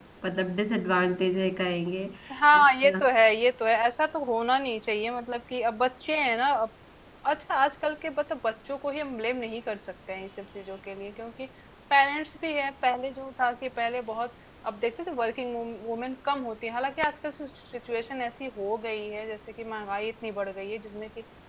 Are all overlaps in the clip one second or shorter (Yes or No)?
Yes